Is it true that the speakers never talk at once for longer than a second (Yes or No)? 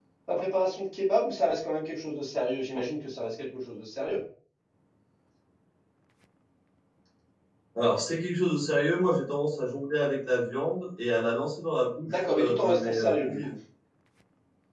No